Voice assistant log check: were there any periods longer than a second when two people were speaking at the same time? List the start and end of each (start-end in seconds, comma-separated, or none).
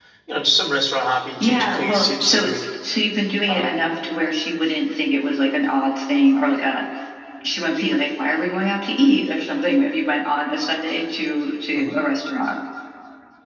1.4-2.6